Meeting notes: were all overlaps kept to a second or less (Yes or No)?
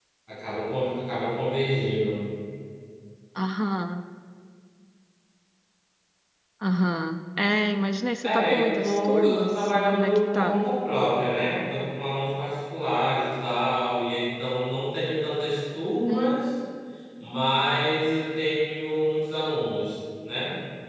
No